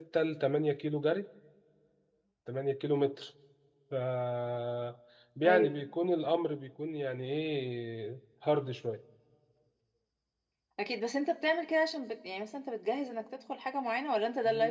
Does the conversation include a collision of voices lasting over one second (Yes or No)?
No